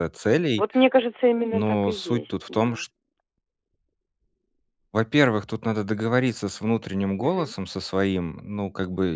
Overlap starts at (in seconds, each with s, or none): 1.5 s